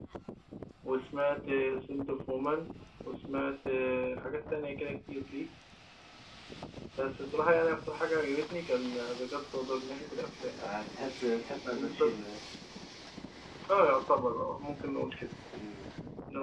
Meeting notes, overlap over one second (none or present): none